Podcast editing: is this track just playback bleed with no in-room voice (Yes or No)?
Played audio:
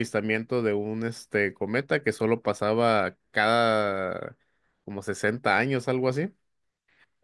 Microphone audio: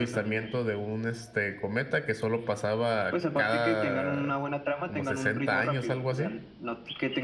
No